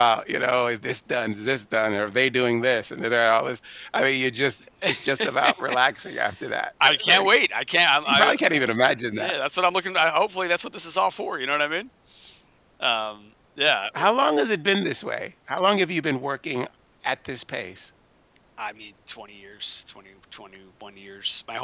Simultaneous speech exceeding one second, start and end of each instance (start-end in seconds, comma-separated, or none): none